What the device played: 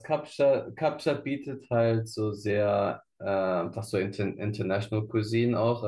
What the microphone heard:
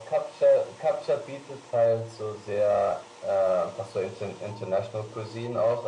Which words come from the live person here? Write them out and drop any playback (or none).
none